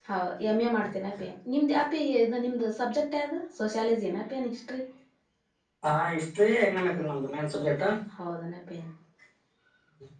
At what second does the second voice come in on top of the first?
none

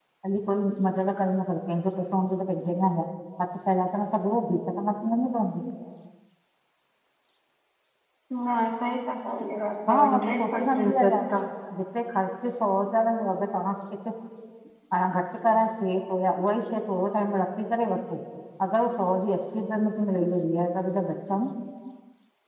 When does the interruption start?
9.9 s

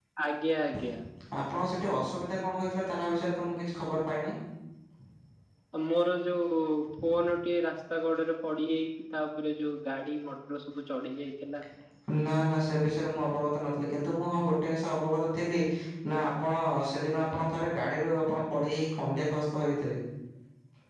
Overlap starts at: none

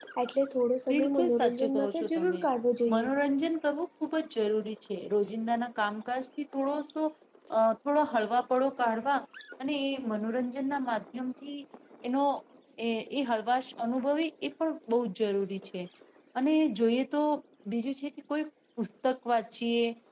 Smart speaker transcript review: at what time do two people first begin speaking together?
0.9 s

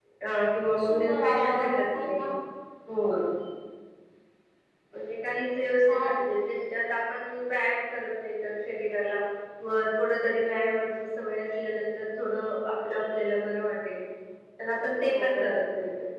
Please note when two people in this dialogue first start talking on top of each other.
0.8 s

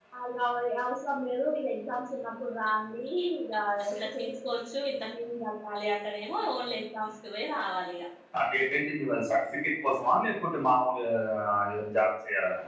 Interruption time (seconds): none

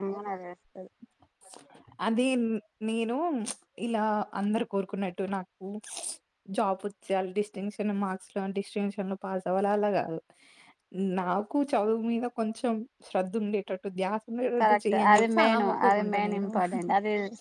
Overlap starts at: 14.6 s

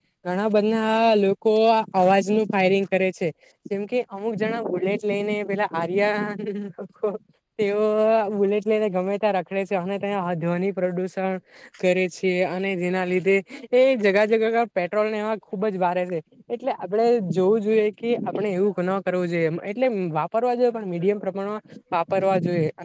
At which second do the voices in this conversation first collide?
none

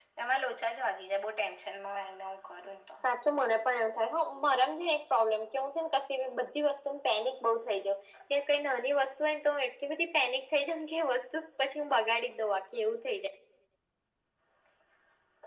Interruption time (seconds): none

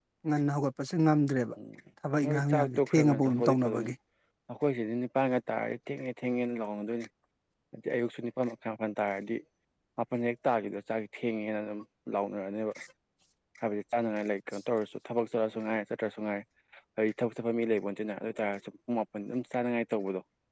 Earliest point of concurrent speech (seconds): 2.2 s

